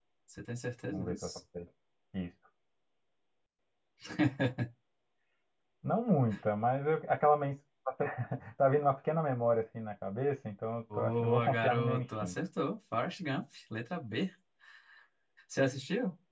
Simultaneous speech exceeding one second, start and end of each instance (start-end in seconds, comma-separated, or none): 11.0-12.3